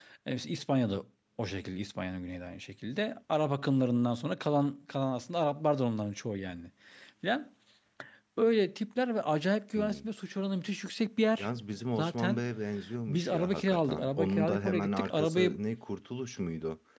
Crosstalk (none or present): present